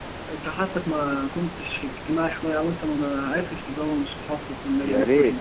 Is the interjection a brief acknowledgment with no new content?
No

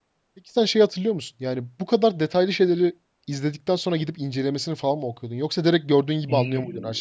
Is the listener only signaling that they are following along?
No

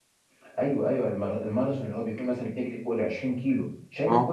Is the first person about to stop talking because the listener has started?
No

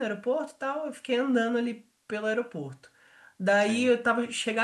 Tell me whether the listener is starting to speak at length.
No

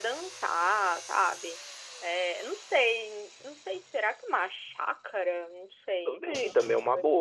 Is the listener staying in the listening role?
No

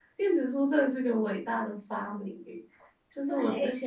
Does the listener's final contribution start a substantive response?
No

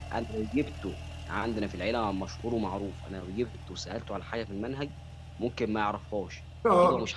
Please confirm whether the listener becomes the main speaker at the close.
No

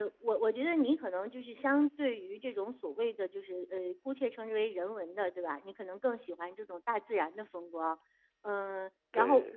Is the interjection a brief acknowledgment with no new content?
Yes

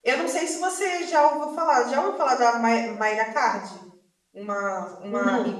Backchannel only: Yes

